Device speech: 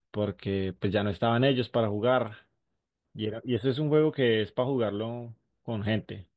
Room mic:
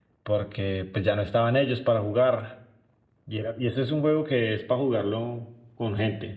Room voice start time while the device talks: none

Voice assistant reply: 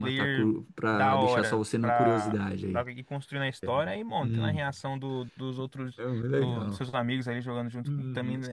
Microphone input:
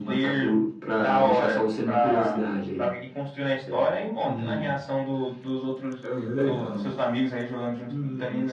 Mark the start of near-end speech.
none

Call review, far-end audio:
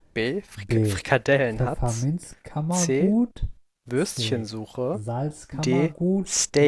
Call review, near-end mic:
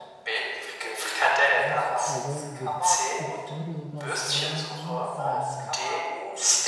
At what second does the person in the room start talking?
2 s

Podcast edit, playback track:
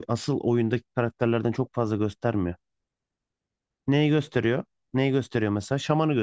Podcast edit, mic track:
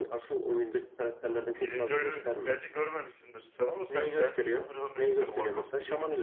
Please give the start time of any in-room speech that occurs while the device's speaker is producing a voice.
2 s

